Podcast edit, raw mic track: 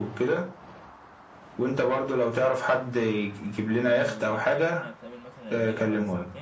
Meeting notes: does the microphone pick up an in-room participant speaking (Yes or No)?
Yes